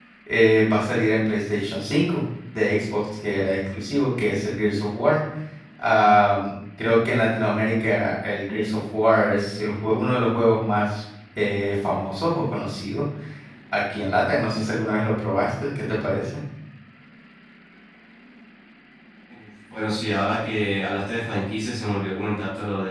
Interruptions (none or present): none